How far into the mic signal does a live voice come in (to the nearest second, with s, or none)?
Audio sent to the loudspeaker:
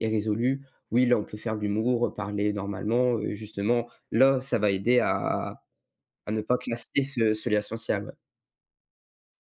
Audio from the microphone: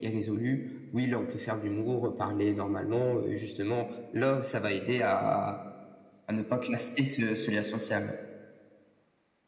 none